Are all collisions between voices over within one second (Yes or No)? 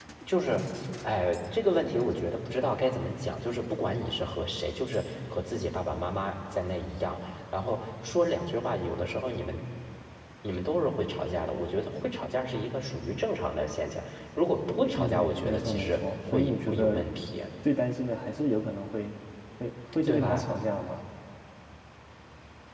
No